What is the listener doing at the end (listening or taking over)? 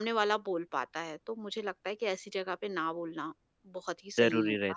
taking over